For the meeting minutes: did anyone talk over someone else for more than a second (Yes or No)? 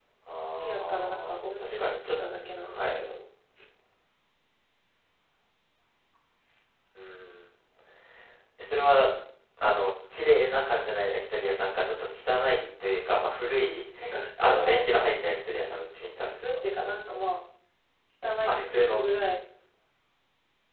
Yes